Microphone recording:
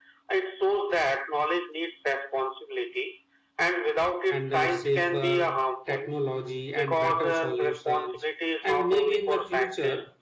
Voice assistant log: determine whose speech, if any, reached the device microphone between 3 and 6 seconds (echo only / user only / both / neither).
both